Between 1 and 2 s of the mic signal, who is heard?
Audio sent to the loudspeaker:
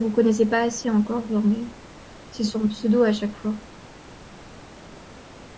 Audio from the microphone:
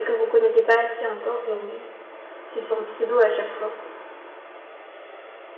echo only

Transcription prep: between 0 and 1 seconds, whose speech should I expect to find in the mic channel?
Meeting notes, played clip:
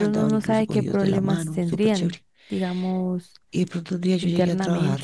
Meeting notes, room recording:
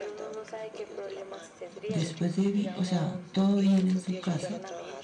echo only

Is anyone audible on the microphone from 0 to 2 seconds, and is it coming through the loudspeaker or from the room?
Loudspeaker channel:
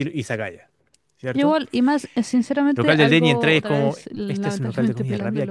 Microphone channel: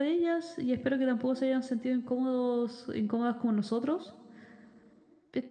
user only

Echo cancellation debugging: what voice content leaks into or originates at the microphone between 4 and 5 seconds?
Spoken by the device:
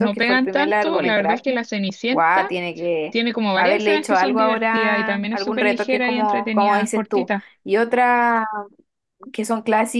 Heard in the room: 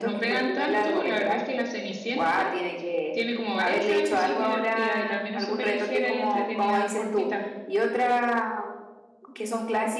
echo only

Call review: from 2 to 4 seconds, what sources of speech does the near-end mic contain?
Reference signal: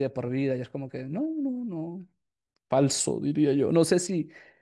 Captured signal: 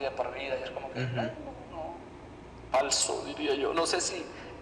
echo only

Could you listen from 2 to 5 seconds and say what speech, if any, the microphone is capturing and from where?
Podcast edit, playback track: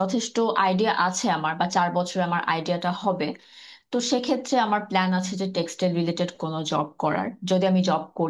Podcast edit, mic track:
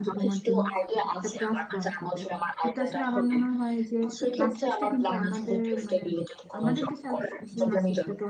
both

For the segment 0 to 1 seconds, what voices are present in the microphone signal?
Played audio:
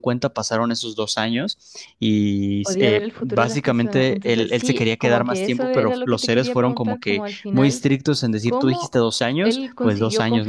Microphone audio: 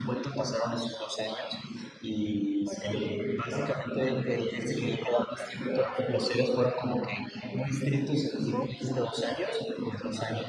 echo only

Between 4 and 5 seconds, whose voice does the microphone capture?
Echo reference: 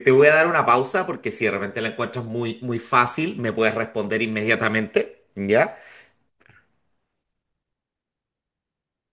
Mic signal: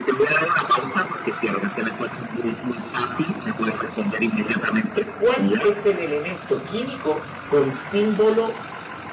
echo only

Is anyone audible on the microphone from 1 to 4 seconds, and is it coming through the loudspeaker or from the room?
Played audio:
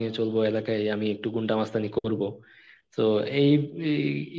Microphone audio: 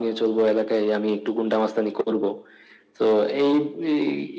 echo only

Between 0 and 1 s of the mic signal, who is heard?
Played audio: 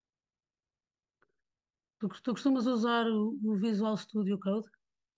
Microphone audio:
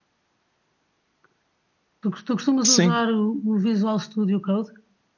neither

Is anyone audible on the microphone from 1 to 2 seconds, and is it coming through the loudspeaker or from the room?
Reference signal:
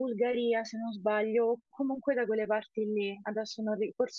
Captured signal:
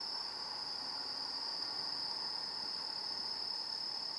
neither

